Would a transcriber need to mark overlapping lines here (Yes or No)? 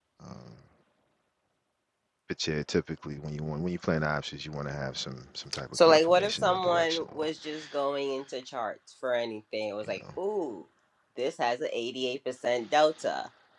Yes